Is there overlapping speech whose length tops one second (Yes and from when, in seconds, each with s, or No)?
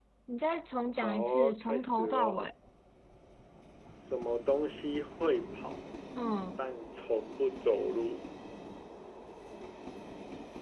Yes, from 1.0 s